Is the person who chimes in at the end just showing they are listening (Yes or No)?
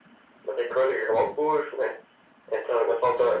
Yes